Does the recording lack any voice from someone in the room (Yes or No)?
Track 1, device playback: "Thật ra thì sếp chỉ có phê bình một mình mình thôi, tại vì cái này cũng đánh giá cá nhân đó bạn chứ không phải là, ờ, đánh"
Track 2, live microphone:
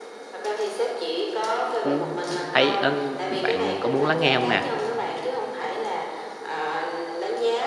No